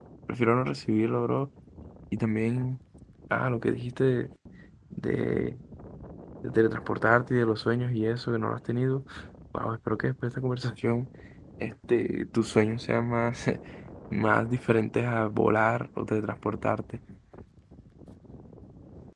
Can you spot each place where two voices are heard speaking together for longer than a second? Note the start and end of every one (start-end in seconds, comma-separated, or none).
none